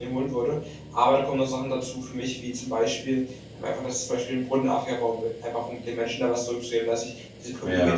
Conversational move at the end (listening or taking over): listening